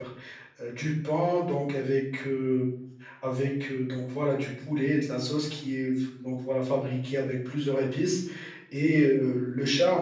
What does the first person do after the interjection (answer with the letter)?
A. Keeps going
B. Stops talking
A